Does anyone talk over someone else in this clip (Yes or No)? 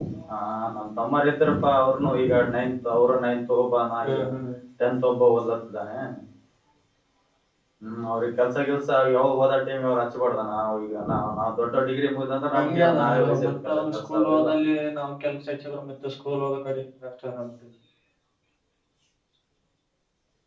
Yes